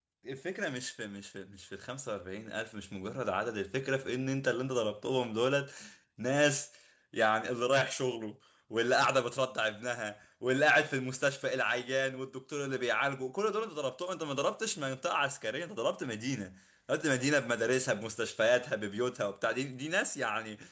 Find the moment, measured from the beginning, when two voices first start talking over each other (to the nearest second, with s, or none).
none